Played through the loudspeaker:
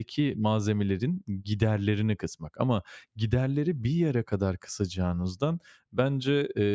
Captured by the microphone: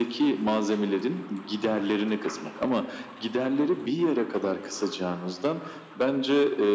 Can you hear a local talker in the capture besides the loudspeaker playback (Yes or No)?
No